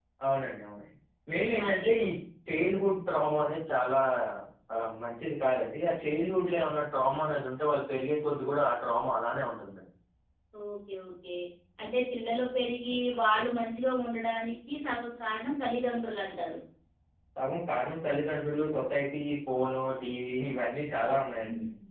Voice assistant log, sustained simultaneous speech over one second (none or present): none